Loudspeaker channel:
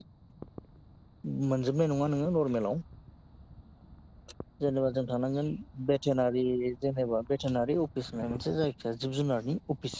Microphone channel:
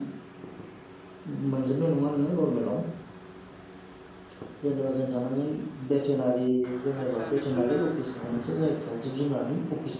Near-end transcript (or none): आचसा नोंथांना